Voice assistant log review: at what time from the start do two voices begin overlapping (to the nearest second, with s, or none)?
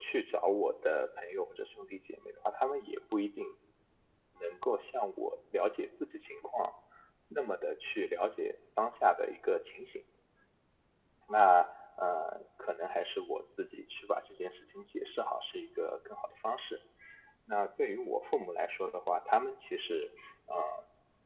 none